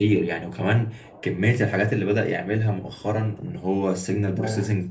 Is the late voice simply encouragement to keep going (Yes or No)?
Yes